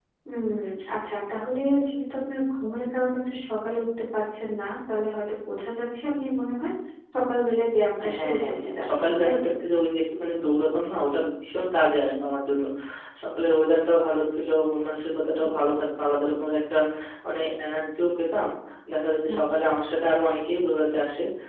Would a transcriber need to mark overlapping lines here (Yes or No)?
Yes